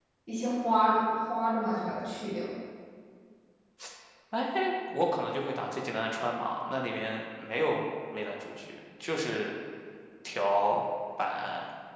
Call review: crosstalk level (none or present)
none